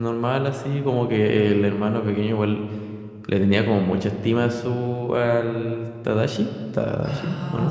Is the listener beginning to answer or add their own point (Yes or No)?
Yes